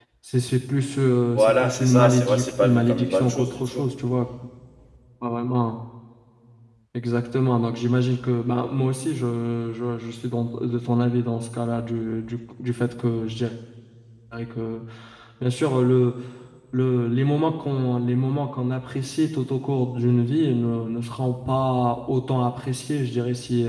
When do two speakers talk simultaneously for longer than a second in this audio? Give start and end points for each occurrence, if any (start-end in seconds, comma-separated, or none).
1.3-3.9